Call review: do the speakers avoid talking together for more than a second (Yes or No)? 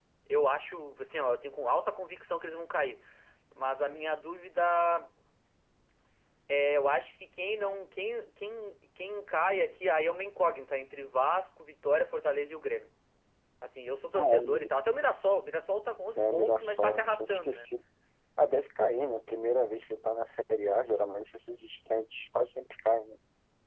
No